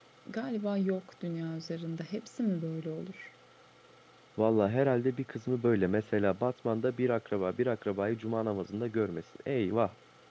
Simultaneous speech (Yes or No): No